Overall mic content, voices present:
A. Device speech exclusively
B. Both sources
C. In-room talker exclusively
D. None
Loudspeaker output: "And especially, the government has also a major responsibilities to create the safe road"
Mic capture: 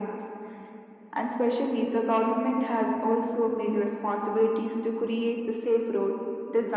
A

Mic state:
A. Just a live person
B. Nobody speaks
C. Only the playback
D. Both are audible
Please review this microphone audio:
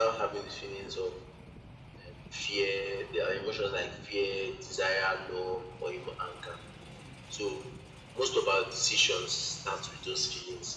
C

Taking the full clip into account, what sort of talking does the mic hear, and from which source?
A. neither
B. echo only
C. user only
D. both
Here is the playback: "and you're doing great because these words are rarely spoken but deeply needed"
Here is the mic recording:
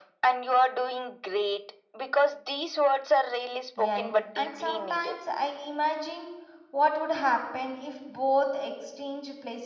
D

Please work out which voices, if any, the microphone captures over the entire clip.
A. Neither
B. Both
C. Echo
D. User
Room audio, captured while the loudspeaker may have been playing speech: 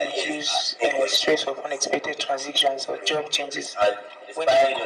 C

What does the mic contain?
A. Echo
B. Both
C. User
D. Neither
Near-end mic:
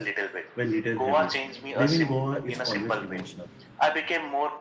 B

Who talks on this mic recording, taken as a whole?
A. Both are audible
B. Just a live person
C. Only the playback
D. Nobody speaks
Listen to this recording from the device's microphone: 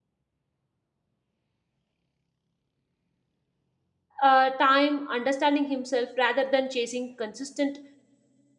B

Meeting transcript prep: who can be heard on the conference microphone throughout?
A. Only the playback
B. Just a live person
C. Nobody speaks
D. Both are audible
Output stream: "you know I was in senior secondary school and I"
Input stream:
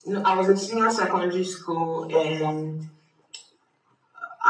A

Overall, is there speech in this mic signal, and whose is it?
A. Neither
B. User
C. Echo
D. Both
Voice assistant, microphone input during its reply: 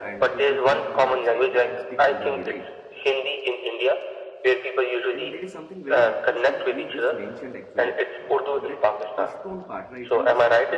D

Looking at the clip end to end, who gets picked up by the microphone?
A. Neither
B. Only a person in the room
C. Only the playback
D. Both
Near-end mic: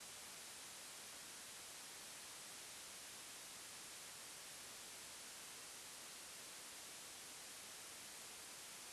A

